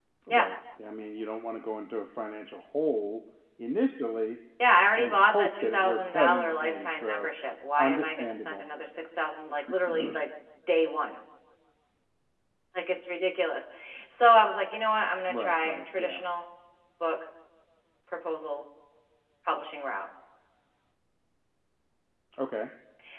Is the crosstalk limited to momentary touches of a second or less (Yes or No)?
No